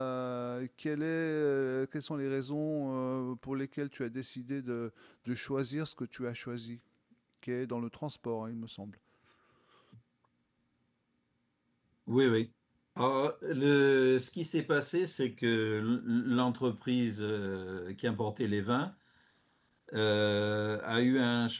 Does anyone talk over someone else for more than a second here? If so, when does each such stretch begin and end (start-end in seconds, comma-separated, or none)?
none